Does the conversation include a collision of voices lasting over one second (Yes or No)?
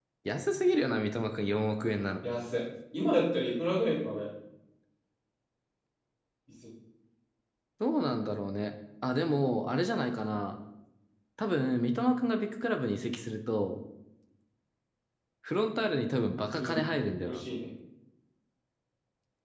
No